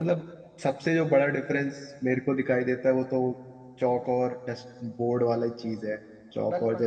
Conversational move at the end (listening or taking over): listening